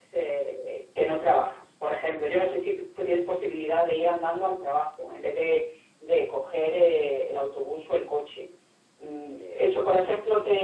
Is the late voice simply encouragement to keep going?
Yes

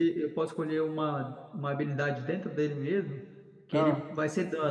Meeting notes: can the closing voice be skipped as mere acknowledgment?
Yes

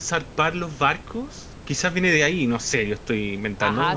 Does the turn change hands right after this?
Yes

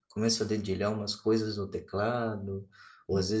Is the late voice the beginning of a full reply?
No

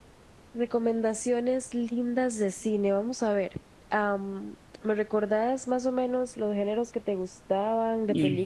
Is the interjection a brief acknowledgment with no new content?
No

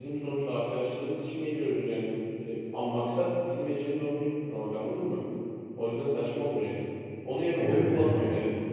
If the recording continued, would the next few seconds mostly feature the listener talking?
No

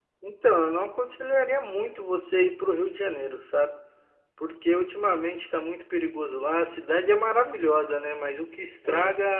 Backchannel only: Yes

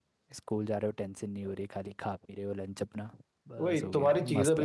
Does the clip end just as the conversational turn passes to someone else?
Yes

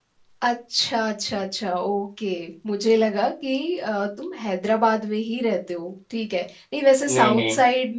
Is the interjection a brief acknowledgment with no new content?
Yes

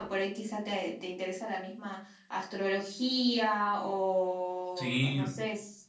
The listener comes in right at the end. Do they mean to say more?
No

